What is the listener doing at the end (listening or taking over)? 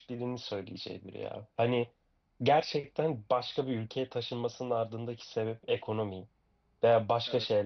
listening